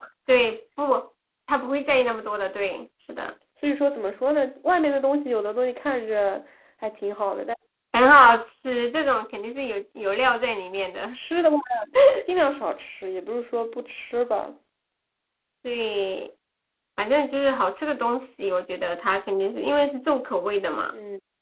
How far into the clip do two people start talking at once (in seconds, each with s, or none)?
none